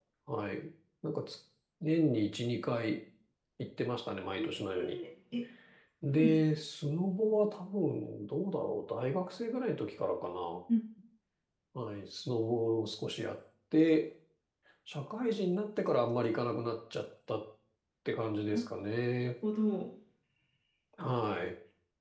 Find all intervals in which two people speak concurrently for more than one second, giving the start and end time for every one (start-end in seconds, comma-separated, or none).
none